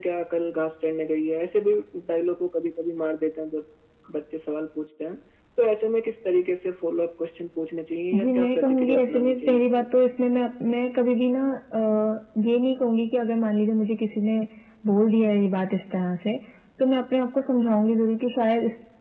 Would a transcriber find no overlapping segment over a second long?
No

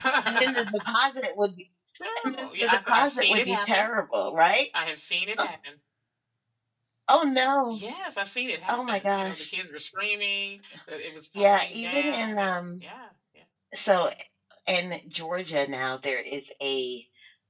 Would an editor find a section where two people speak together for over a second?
Yes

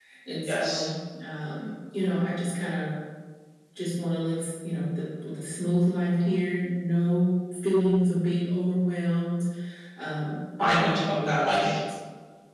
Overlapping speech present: Yes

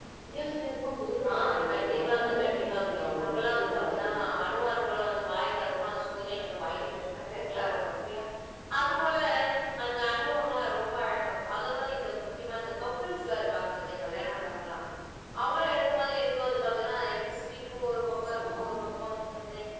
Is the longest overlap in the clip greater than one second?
Yes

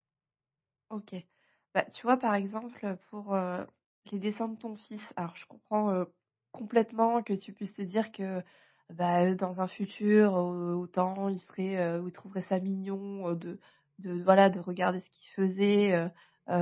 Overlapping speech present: No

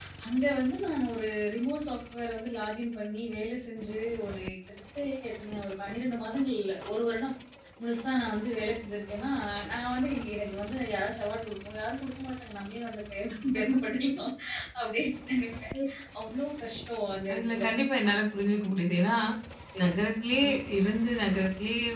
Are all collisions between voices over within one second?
Yes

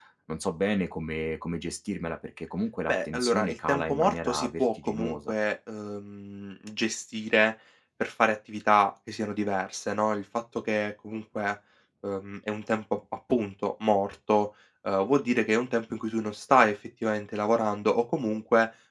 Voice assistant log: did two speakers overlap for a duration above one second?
Yes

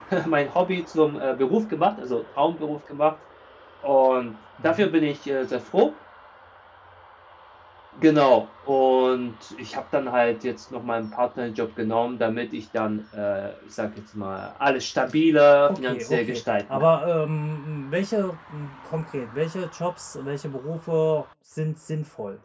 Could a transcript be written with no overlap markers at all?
No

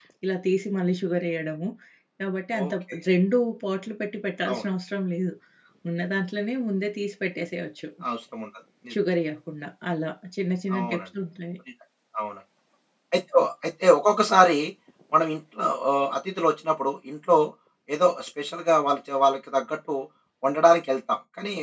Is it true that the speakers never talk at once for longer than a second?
Yes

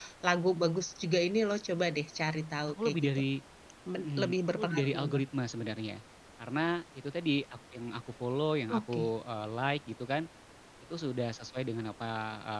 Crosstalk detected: Yes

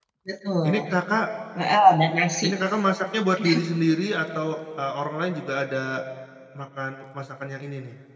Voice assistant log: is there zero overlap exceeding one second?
Yes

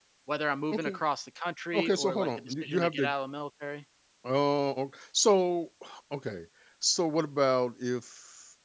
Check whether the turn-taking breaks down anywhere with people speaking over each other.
Yes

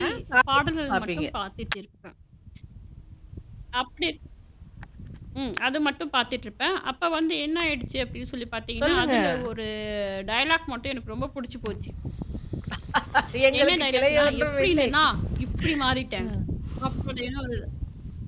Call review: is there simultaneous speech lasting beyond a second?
Yes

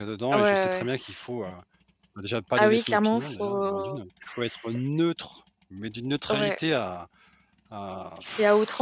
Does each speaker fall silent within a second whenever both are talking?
No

